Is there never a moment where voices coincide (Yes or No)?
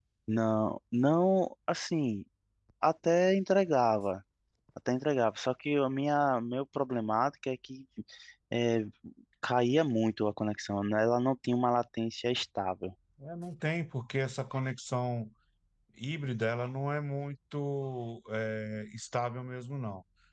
Yes